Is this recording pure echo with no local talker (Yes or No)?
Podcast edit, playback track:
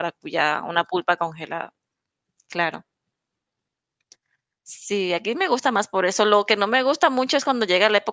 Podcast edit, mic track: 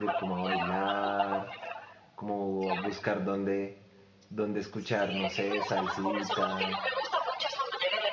No